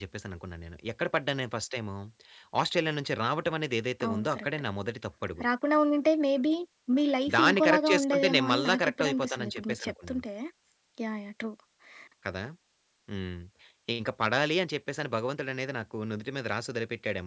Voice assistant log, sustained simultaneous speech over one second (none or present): present